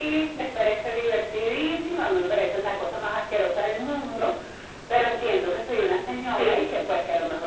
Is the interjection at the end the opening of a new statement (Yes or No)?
No